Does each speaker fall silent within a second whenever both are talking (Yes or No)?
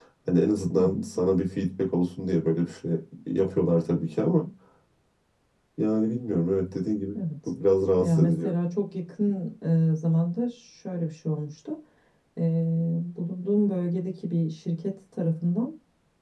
Yes